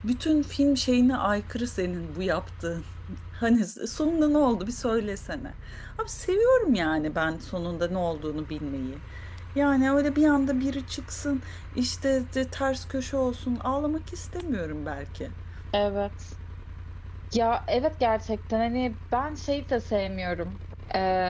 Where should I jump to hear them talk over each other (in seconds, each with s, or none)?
none